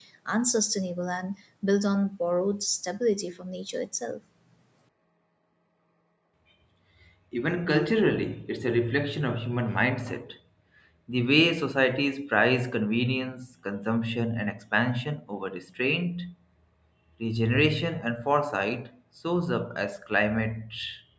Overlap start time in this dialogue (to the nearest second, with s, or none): none